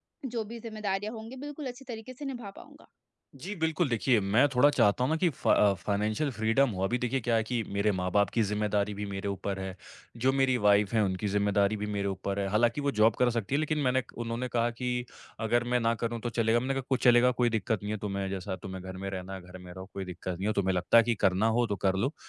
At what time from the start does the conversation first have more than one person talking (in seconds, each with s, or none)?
none